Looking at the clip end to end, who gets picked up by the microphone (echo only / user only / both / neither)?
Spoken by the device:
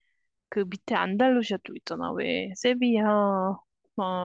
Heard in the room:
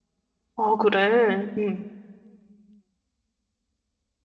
user only